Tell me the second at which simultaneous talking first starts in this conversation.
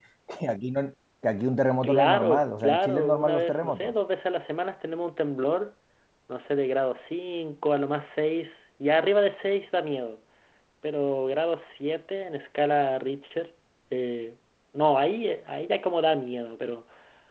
1.8 s

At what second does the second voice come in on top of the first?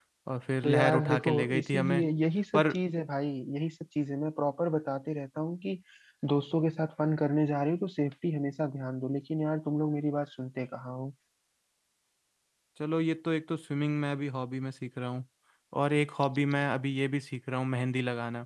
0.6 s

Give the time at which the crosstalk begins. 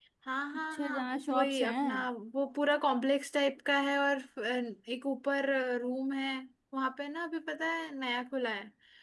0.6 s

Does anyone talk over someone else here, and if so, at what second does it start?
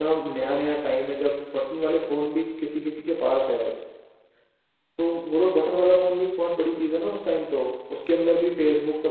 none

